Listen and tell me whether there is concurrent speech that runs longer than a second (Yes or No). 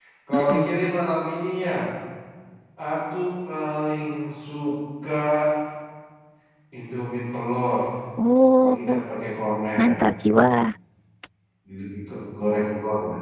No